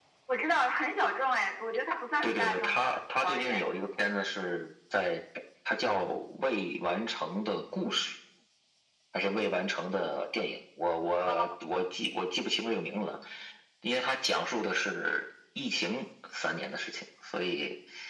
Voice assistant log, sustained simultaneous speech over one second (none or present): present